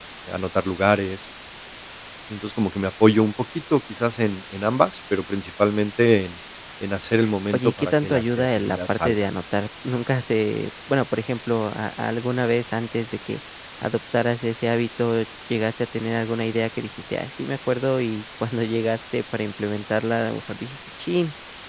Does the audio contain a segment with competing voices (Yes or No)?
Yes